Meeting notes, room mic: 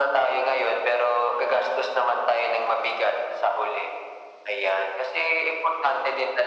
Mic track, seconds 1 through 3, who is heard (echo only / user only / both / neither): echo only